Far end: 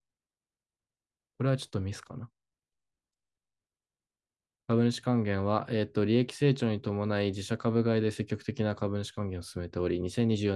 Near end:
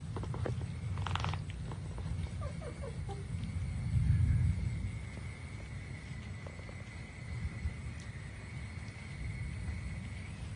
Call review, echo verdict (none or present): none